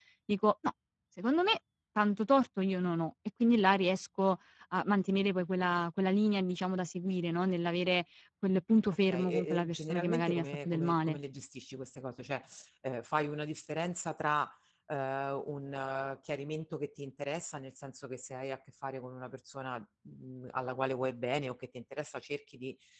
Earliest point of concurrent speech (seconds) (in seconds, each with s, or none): 9.1 s